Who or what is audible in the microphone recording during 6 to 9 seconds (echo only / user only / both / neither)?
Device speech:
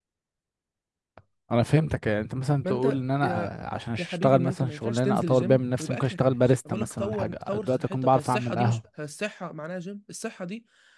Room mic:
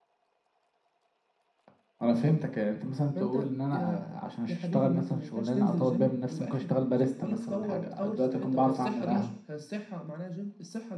echo only